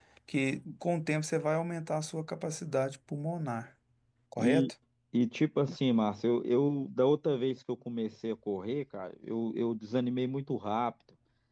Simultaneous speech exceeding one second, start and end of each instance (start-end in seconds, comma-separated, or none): none